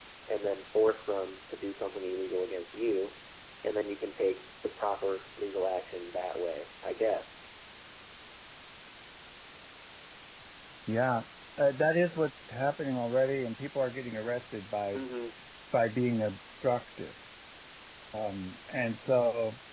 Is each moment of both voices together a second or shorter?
Yes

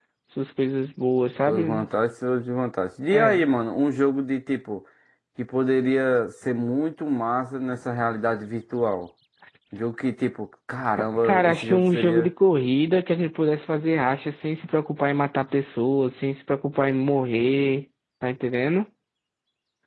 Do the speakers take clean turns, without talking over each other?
No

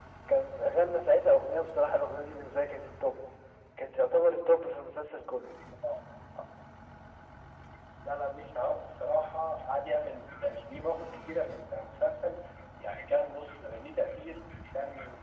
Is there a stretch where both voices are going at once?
No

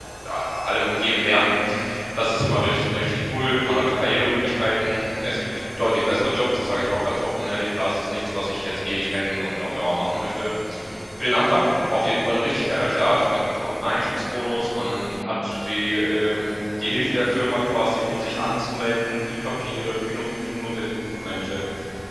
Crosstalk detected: No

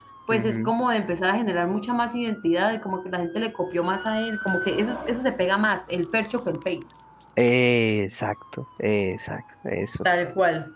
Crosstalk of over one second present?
No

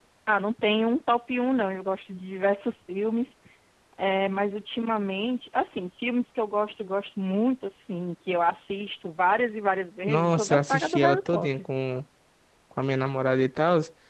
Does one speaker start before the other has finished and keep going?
Yes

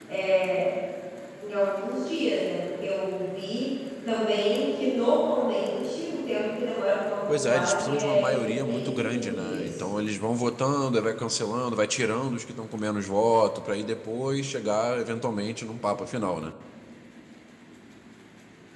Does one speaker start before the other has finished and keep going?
Yes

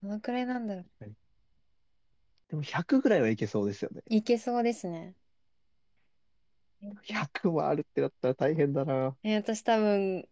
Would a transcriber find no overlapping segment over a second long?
Yes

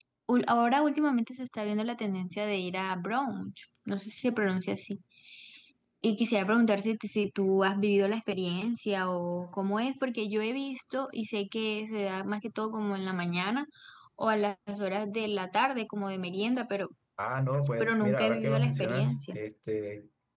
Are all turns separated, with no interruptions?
No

